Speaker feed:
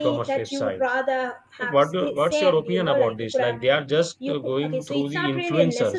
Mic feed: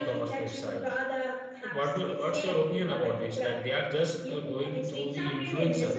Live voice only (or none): none